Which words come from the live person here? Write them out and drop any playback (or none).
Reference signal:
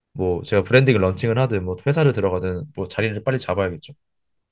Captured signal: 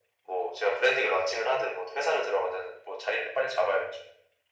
none